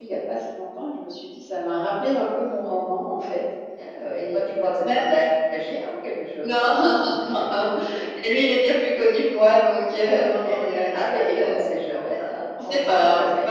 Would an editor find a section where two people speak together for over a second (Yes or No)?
Yes